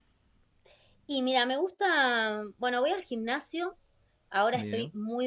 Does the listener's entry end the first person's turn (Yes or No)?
No